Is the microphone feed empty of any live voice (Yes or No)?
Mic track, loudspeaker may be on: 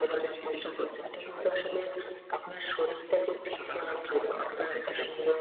Yes